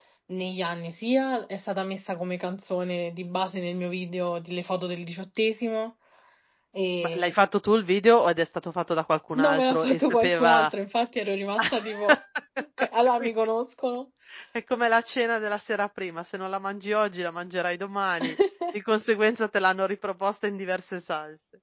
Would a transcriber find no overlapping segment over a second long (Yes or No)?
No